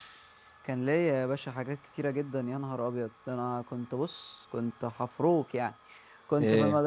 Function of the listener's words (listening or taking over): listening